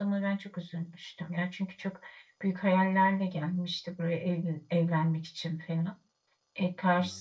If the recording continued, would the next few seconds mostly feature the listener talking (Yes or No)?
Yes